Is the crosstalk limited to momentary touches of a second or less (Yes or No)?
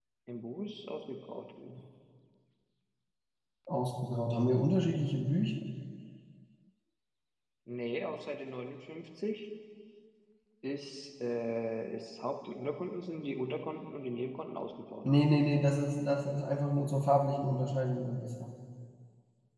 Yes